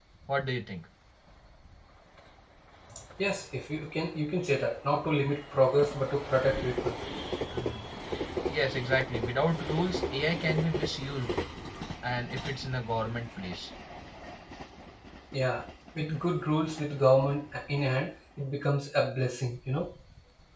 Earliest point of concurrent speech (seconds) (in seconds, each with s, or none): none